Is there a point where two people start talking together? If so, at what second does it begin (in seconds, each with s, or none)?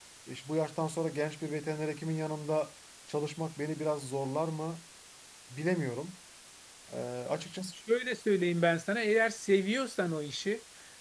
none